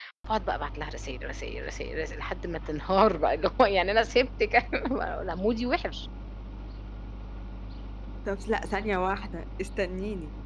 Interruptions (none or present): none